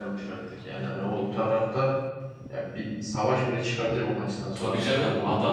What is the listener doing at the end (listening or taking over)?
taking over